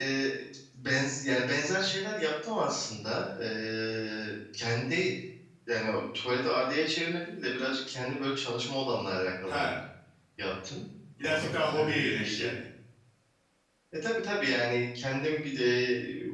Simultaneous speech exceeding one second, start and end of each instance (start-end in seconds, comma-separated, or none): 11.2-12.5